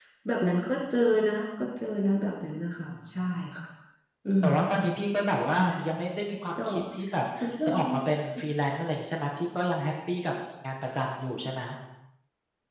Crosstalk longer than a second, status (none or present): none